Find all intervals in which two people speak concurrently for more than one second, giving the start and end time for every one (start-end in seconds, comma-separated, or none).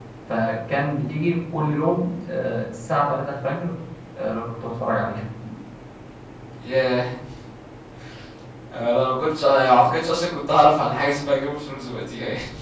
none